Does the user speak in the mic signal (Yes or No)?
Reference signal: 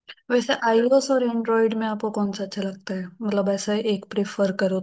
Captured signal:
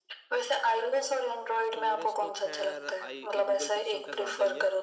Yes